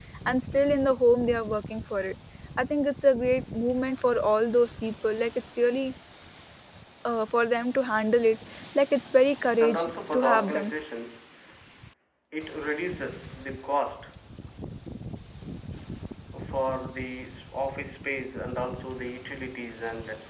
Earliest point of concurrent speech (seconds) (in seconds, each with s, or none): 9.4 s